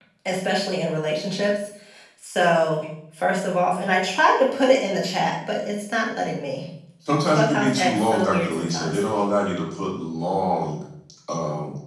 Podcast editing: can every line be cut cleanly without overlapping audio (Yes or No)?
No